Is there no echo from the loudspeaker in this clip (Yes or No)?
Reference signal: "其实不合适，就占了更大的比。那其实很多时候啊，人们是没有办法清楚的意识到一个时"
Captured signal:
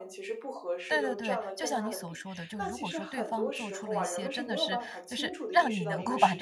No